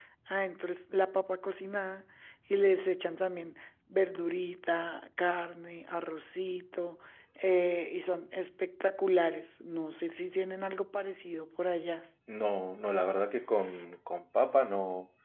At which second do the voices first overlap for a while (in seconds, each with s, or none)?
none